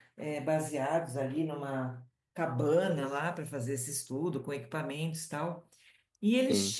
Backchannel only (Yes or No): Yes